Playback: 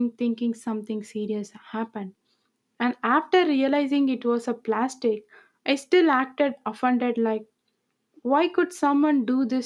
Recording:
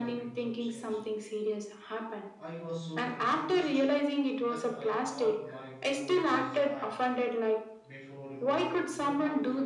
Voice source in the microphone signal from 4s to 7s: both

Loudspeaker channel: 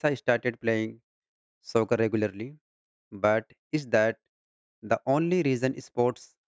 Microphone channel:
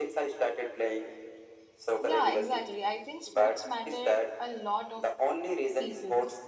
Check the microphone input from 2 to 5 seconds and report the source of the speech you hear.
both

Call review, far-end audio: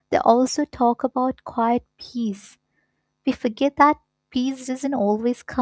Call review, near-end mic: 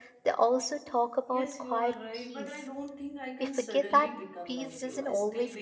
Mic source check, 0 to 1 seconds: echo only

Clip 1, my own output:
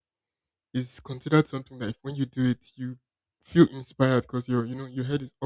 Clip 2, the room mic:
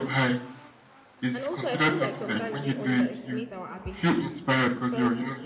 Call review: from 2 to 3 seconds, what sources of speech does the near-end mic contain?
both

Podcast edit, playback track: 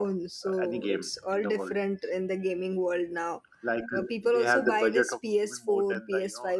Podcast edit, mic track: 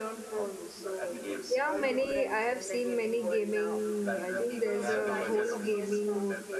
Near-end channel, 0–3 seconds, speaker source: both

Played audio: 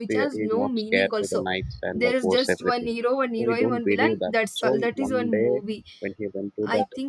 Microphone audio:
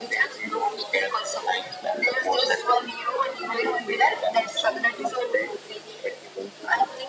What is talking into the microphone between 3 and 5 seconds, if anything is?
echo only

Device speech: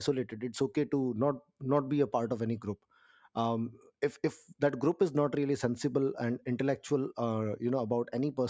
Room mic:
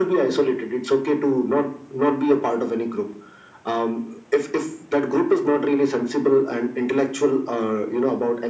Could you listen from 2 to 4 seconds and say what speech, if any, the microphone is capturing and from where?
echo only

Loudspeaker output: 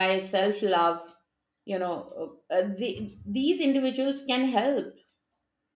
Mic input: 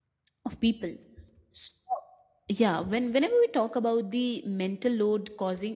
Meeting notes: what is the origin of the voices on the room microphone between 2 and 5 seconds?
user only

